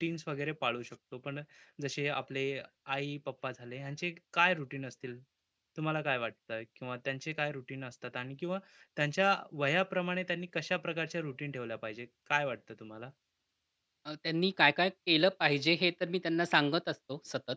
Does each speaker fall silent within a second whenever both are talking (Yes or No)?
Yes